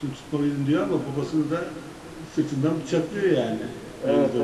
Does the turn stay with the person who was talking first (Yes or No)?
No